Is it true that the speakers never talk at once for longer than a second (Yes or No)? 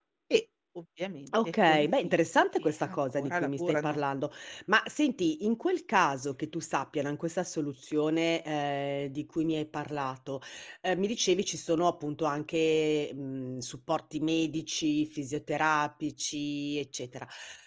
No